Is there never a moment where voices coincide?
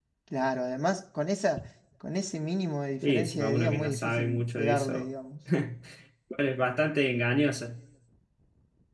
No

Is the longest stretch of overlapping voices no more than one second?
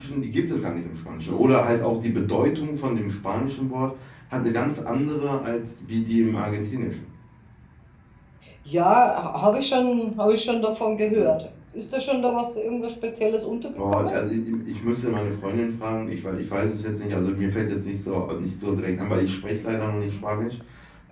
Yes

